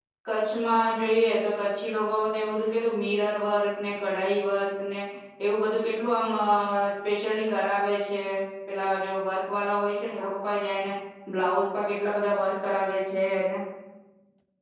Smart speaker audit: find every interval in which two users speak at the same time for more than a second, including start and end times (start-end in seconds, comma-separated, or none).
none